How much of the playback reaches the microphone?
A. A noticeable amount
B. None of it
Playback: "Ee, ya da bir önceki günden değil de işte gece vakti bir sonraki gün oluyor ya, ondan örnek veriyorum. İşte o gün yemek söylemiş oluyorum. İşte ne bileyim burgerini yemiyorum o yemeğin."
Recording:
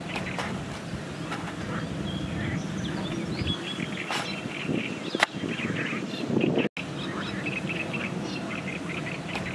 B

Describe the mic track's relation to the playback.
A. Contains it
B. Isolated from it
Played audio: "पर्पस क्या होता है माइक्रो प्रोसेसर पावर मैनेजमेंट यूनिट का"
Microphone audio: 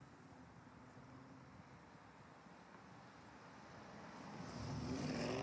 B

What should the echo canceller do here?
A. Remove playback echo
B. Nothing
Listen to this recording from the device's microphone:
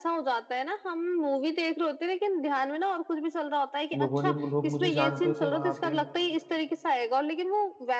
A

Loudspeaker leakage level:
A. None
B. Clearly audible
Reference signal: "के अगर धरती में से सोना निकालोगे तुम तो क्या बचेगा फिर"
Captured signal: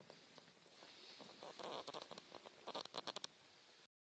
A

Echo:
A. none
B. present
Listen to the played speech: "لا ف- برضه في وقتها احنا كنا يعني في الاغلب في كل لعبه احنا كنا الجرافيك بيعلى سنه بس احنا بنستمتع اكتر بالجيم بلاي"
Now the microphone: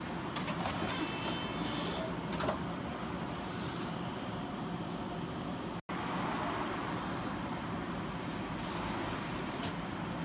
A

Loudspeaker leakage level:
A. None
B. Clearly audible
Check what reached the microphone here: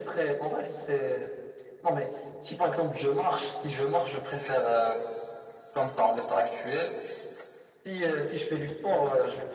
B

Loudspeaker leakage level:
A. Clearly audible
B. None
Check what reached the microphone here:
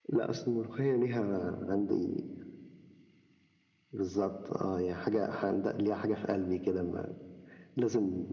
A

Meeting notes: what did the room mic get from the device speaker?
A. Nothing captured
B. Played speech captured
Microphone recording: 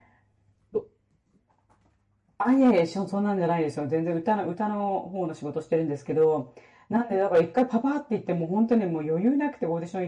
A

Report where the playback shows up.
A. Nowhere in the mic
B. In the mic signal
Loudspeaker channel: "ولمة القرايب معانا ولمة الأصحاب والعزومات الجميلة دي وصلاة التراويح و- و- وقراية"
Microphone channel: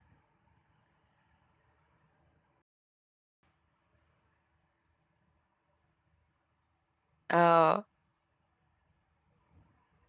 A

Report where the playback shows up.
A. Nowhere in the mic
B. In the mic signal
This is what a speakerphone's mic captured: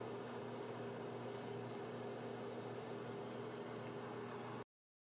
A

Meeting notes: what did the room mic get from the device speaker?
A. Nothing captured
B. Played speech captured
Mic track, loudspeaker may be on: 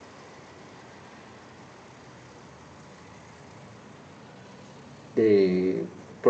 A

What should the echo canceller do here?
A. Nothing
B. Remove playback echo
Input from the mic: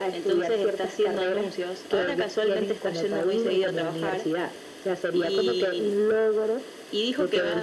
B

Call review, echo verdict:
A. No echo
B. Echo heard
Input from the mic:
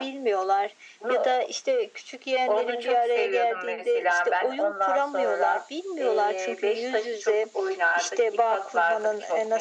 B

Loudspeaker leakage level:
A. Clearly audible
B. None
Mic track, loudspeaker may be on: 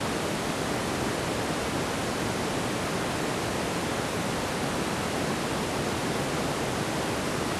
B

